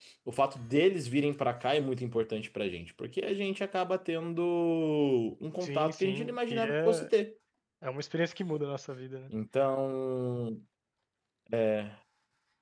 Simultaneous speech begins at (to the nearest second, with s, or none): 6 s